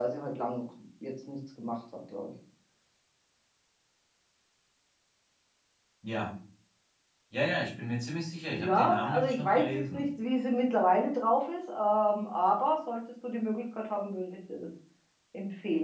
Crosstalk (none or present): present